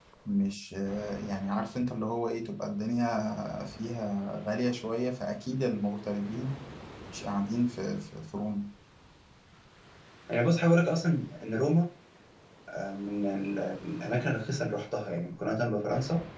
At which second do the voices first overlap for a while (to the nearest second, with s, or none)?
none